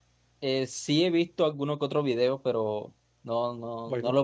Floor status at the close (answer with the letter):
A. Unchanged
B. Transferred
B